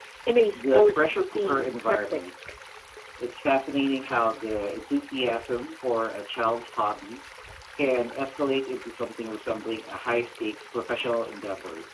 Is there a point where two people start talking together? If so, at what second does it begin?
0.5 s

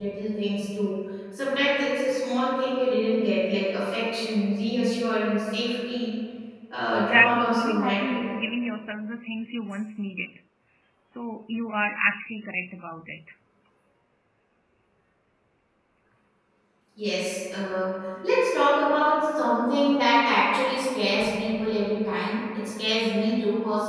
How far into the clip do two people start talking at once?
7.0 s

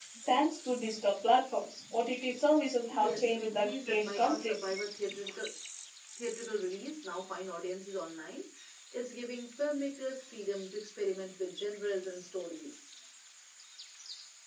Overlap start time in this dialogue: 2.9 s

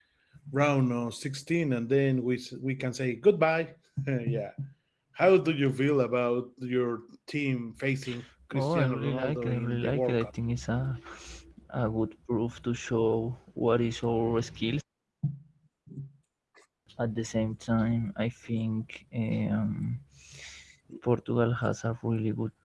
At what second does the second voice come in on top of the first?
8.5 s

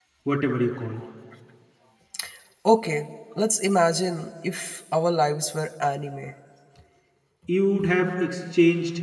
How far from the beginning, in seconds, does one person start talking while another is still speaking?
none

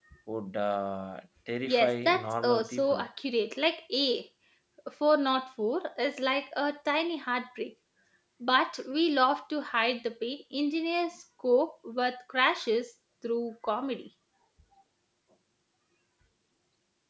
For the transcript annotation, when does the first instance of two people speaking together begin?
1.6 s

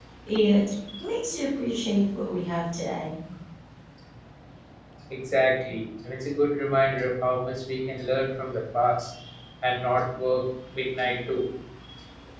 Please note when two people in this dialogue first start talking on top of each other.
none

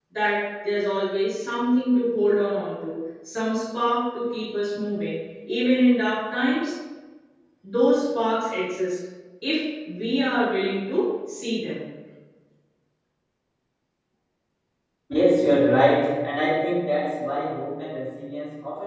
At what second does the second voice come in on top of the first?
none

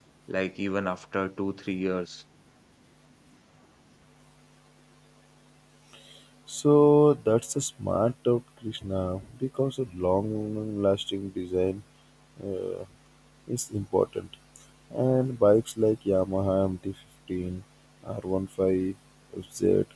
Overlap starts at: none

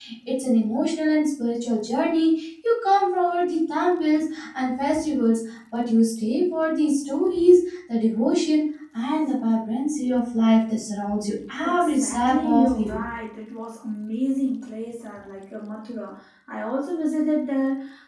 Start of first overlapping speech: 11.6 s

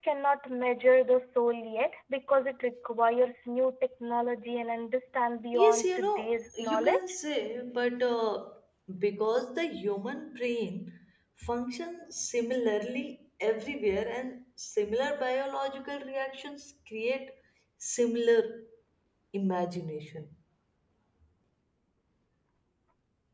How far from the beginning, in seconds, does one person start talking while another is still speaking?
5.5 s

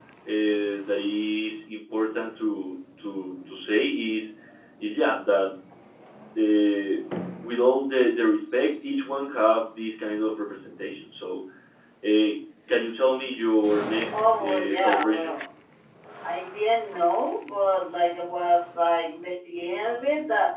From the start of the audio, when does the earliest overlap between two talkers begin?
14.1 s

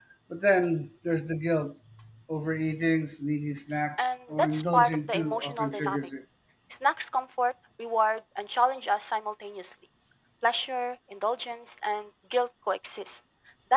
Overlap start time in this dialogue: 4.0 s

